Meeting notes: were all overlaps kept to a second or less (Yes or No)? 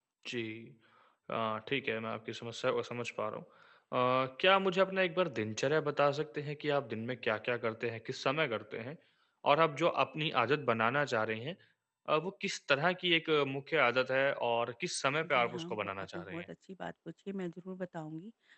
No